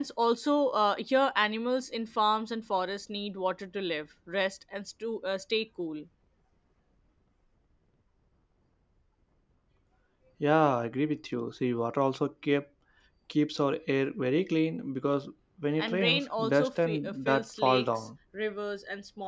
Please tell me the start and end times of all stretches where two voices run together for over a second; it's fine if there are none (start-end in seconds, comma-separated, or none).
15.8-18.1